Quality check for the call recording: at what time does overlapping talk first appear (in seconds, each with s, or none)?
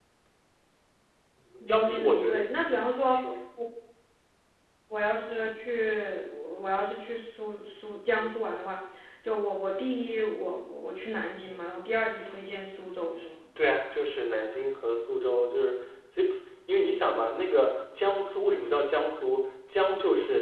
1.6 s